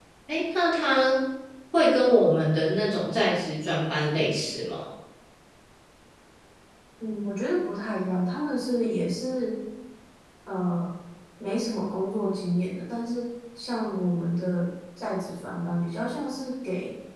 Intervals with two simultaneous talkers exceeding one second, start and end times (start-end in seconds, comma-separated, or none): none